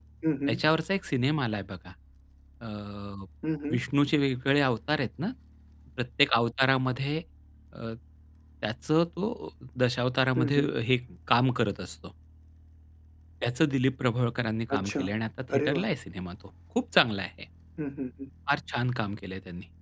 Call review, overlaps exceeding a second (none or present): none